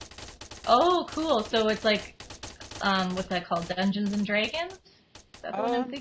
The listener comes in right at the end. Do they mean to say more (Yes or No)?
Yes